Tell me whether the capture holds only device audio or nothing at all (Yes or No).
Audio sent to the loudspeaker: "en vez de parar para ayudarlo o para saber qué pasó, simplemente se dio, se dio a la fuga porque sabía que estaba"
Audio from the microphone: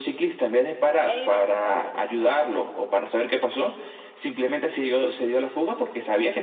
No